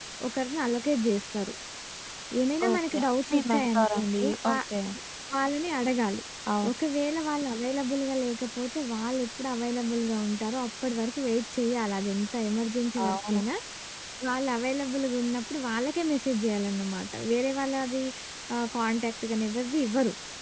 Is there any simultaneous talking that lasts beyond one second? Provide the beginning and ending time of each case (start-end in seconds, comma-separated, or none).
2.7-4.6